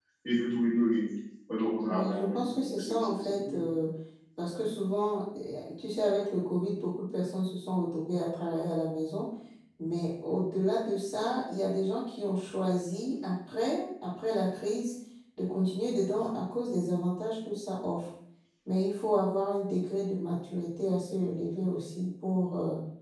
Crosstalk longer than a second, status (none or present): present